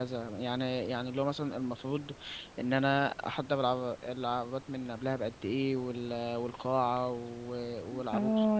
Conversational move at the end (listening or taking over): taking over